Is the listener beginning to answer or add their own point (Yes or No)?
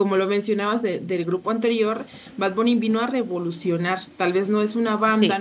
No